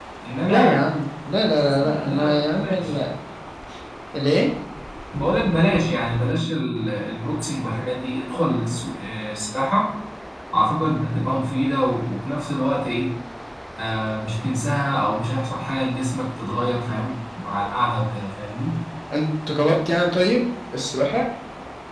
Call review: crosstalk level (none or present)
present